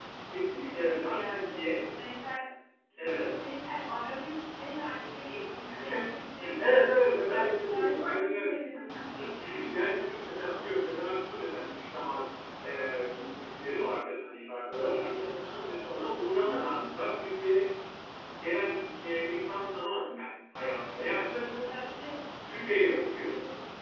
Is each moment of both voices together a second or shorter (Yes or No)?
No